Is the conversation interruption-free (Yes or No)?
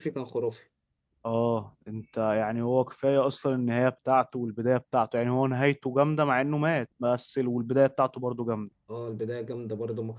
Yes